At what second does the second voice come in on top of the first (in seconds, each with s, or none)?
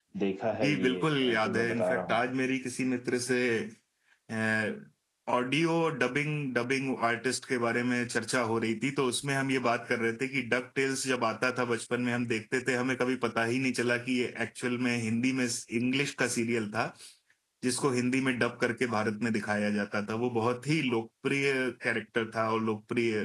0.6 s